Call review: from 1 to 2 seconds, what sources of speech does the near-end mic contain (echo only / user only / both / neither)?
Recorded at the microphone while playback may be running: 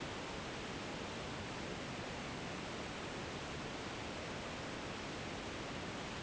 neither